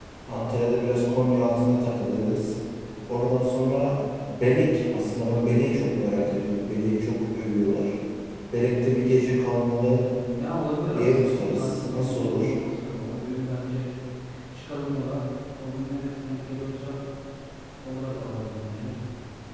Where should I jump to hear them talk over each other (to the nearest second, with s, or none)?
11 s